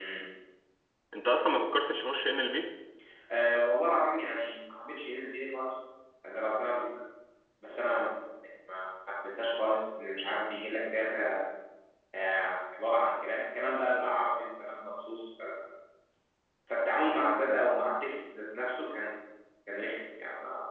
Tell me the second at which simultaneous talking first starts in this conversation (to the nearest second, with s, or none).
none